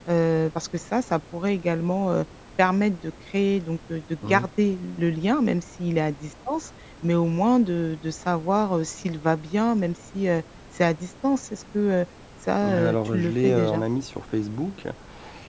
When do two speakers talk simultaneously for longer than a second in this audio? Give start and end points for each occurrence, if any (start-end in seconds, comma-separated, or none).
12.6-13.8